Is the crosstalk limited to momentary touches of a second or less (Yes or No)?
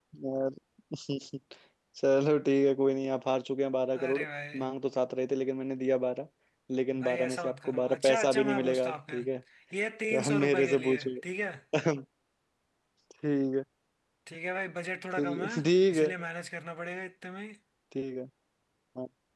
No